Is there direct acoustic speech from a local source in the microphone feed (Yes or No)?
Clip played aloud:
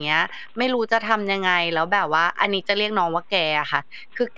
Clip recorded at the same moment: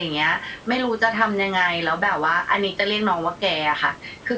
No